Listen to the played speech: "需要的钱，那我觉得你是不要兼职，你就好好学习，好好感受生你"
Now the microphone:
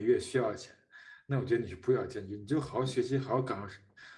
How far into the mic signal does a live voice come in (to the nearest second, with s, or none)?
none